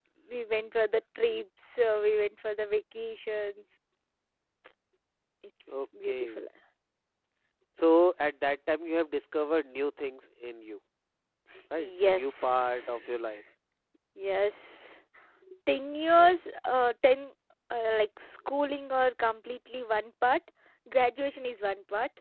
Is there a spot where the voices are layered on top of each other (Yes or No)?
Yes